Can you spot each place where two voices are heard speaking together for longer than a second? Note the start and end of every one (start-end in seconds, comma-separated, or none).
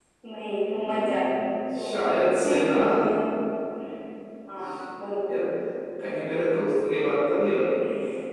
0.6-2.0